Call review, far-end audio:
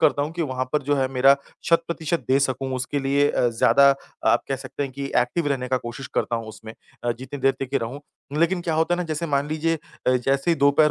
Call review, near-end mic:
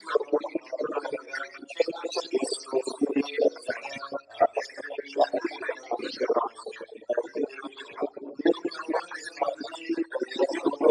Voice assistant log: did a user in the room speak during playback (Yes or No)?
No